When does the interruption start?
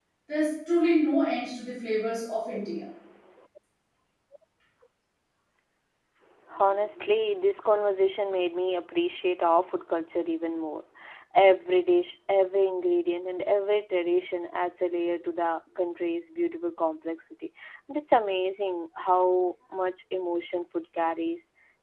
none

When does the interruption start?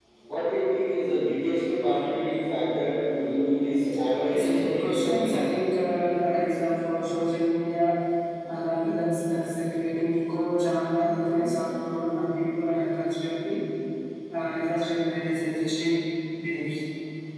4.3 s

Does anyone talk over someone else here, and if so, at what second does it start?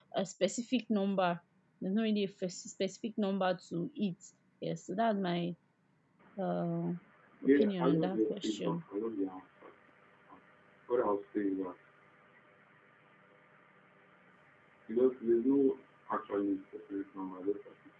7.4 s

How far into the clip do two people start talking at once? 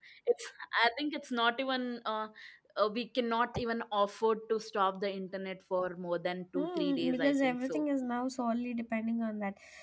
6.5 s

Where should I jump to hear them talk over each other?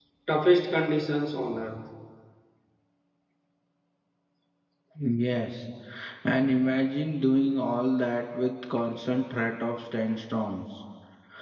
none

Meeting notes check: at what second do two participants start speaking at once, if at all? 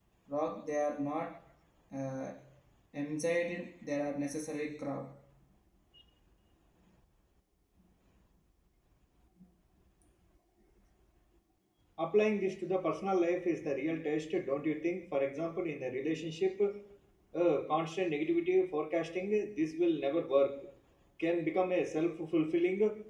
none

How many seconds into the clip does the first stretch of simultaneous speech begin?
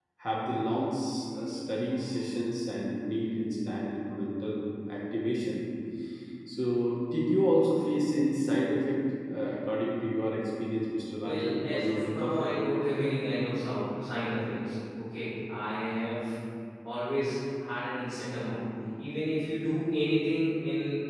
11.2 s

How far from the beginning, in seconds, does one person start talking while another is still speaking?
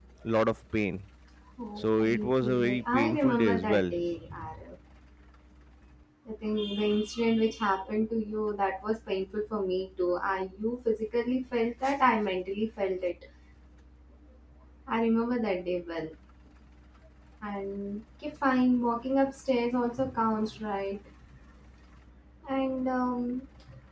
1.8 s

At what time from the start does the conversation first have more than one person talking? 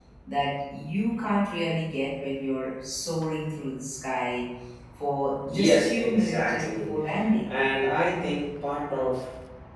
5.5 s

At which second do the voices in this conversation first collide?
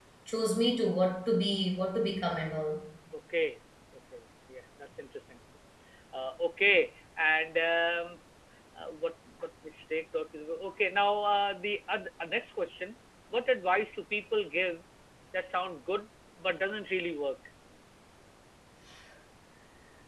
none

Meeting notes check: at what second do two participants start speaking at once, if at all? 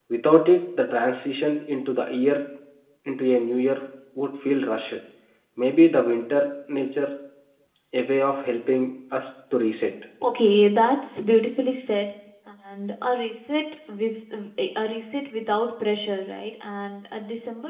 none

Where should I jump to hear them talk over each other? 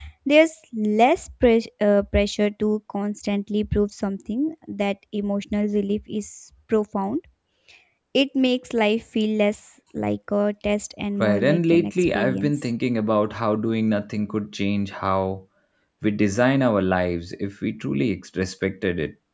11.2 s

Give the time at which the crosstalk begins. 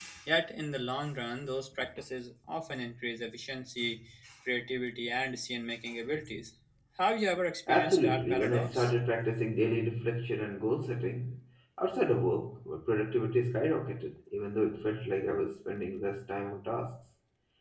7.7 s

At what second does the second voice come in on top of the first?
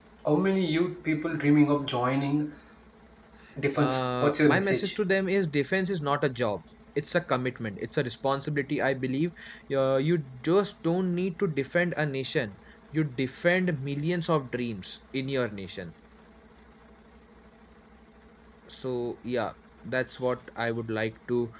3.7 s

